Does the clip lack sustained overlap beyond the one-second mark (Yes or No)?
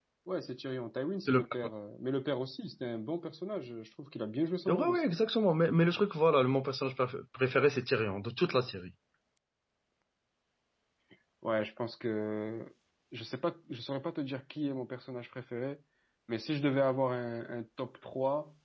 Yes